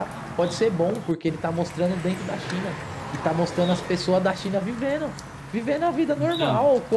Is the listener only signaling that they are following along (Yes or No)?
Yes